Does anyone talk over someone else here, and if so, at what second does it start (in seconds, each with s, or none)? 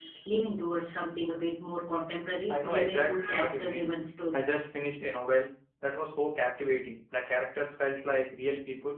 2.5 s